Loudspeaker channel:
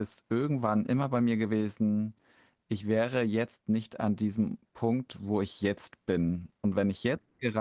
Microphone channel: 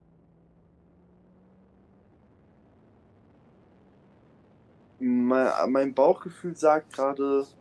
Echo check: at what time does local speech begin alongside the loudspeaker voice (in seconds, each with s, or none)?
5.0 s